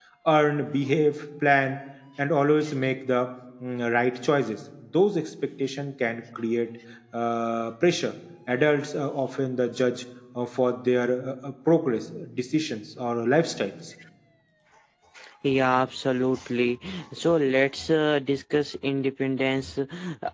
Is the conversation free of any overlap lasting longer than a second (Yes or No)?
Yes